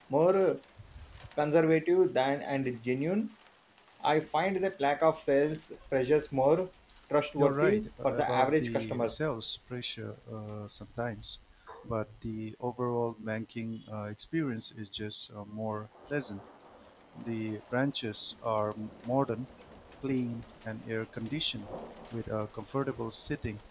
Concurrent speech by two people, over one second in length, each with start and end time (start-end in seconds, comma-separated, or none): 7.4-9.2